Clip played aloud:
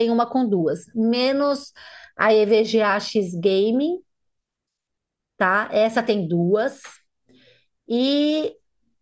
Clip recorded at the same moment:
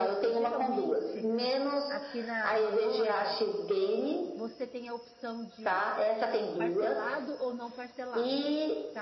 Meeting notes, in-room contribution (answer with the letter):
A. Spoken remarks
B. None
A